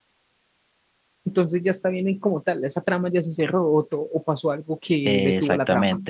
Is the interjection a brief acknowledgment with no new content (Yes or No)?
No